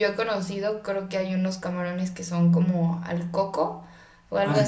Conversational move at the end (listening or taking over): listening